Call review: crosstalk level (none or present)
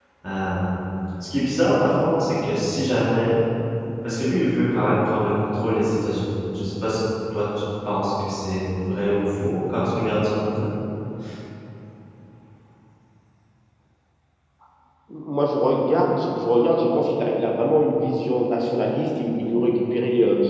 none